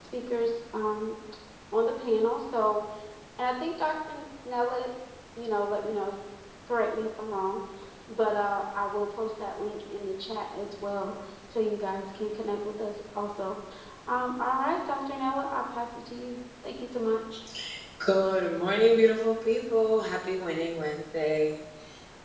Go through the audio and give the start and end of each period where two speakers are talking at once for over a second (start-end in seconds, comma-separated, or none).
none